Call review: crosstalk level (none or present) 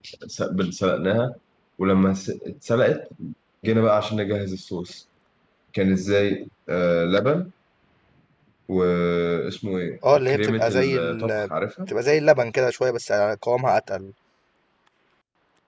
present